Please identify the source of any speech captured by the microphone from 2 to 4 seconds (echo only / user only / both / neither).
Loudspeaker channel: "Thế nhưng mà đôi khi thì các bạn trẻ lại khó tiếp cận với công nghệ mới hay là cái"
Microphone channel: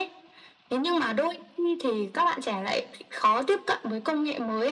echo only